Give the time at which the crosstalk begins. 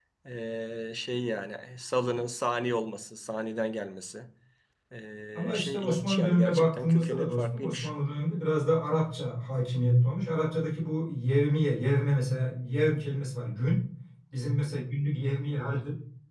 5.3 s

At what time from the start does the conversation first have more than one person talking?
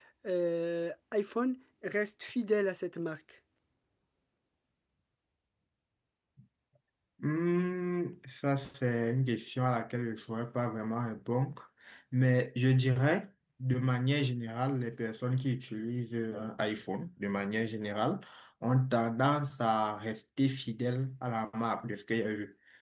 none

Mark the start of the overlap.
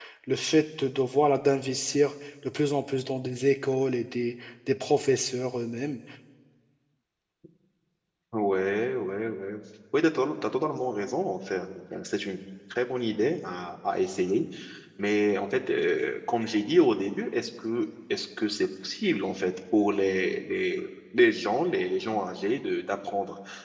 none

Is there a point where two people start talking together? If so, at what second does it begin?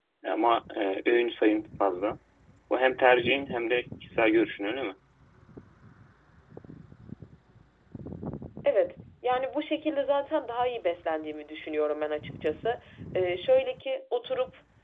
none

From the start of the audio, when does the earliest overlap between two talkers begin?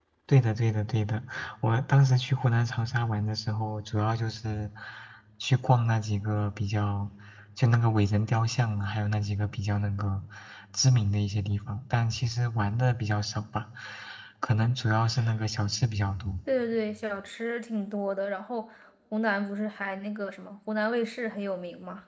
none

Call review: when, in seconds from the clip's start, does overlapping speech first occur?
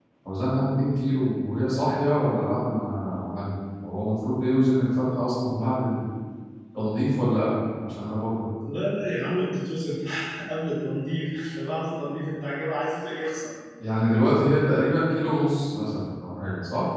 none

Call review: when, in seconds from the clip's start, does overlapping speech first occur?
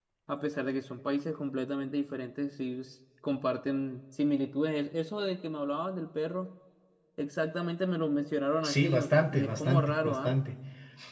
8.6 s

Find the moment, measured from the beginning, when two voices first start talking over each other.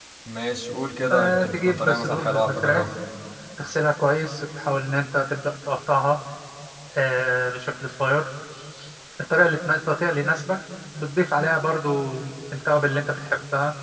1.1 s

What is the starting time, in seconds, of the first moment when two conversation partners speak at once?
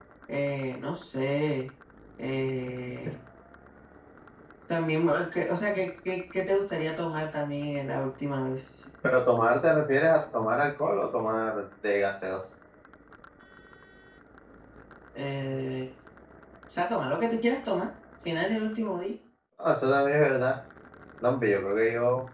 none

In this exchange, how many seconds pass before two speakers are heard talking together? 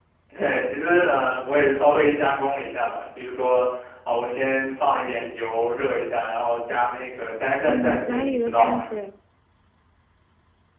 7.6 s

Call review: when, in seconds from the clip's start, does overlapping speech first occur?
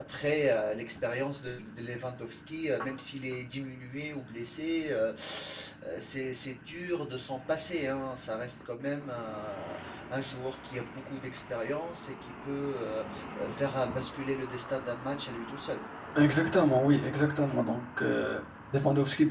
none

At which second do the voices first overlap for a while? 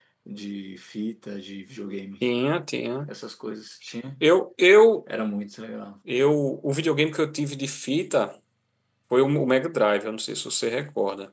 none

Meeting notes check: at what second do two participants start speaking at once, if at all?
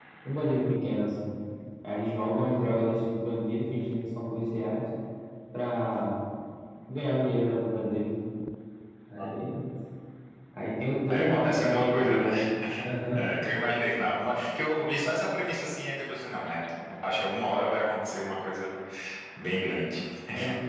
11.1 s

